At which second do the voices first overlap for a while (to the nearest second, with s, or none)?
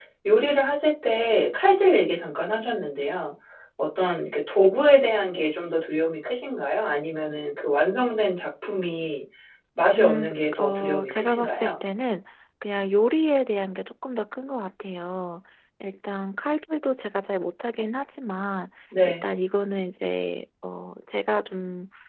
10 s